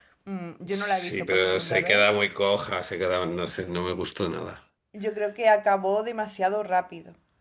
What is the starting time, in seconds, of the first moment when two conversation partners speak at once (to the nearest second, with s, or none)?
1 s